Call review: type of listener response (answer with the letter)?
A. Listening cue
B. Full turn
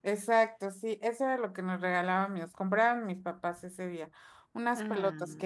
A